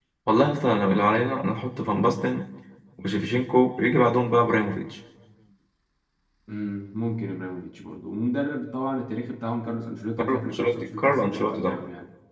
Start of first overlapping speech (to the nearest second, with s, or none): 10 s